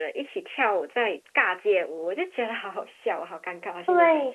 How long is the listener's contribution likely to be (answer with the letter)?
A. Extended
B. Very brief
A